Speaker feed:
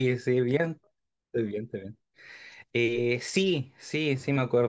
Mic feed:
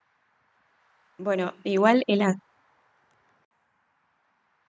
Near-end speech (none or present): present